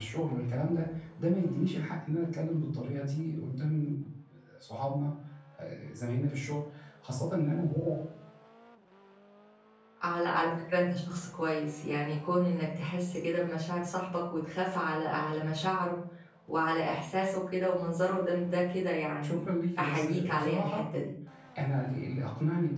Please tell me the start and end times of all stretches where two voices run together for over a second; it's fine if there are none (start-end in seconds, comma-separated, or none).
19.2-20.8